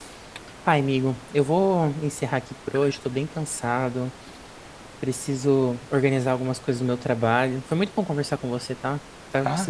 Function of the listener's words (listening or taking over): listening